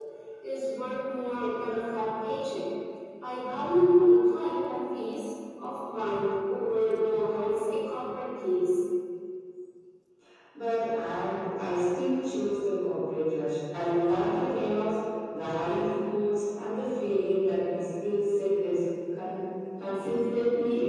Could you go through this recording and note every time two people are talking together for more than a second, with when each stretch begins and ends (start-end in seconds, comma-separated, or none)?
none